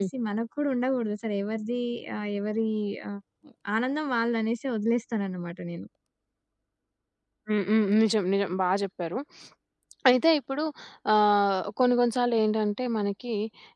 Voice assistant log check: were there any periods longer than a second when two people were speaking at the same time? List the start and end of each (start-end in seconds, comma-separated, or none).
none